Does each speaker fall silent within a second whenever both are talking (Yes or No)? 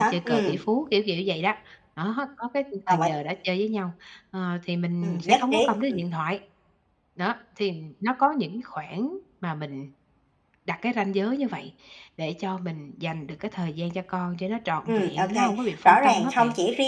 No